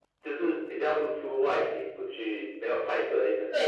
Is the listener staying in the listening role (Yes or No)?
No